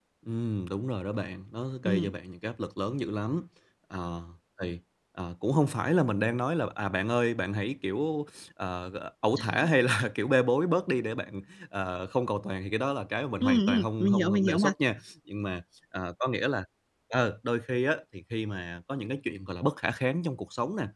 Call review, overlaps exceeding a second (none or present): present